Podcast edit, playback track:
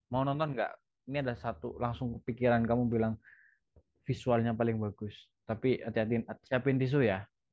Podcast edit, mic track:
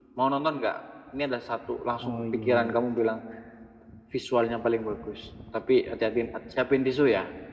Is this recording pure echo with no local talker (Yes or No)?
No